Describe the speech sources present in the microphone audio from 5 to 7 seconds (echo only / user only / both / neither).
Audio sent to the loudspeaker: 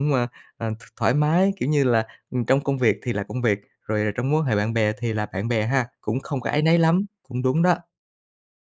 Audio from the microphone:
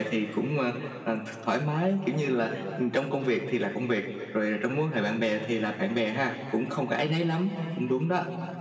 echo only